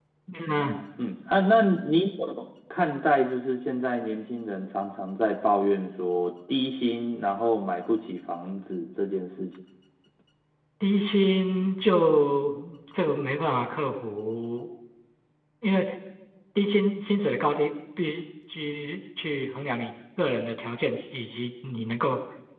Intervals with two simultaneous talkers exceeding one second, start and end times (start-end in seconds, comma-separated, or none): none